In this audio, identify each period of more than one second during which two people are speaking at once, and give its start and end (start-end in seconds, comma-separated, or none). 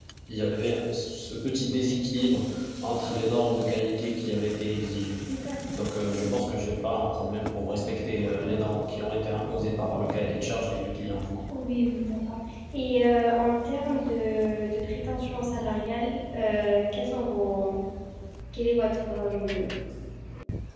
none